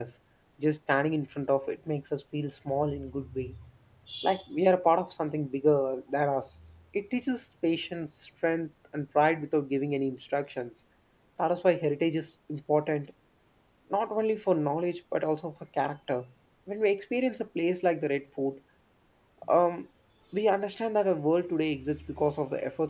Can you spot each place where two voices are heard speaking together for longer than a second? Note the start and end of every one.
none

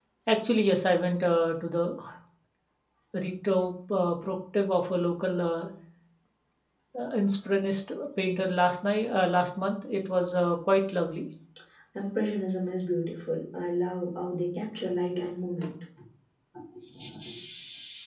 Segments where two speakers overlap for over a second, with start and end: none

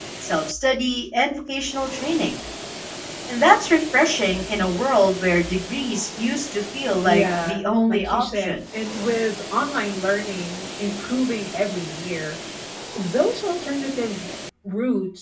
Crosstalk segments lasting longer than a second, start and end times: 7.0-8.6

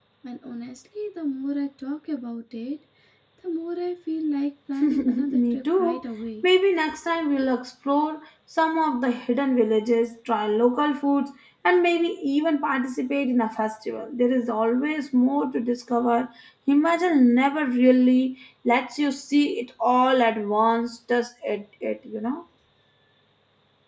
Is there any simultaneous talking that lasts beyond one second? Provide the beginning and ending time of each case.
4.8-6.0

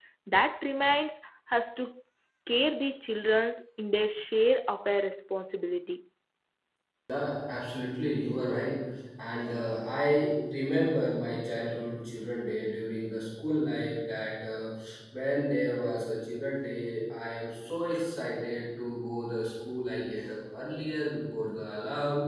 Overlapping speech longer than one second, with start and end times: none

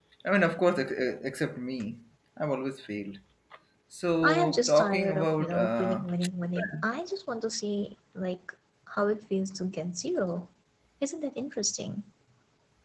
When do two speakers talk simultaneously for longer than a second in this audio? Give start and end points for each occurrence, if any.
4.2-6.0

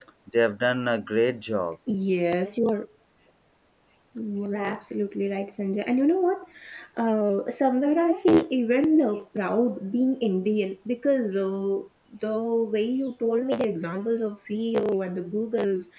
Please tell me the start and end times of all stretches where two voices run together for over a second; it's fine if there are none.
none

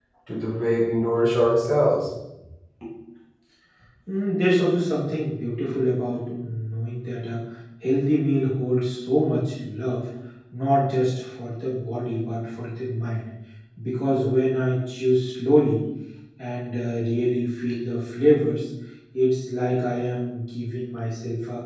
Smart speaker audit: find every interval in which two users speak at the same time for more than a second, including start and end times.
none

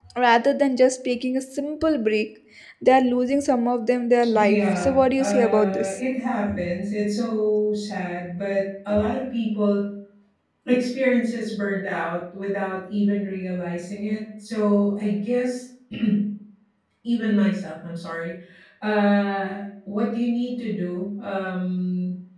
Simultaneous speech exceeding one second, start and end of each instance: 4.3-5.9

